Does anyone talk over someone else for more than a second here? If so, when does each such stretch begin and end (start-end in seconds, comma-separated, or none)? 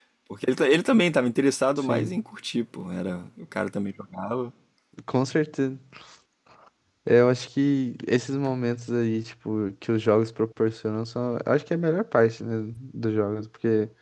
none